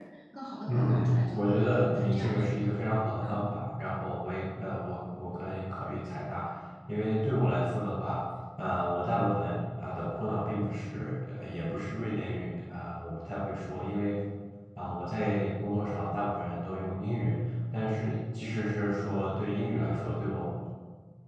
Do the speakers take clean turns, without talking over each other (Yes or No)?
No